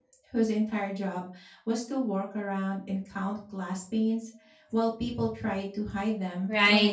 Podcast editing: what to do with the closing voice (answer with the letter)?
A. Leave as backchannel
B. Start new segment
B